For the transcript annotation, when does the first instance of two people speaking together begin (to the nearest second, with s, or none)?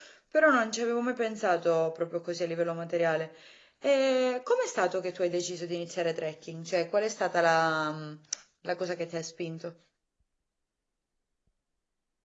none